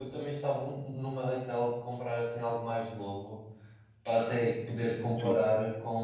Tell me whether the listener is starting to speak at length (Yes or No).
No